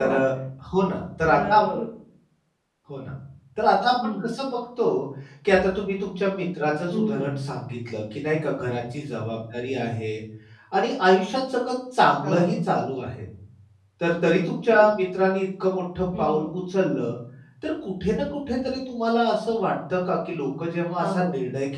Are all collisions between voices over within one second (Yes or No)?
Yes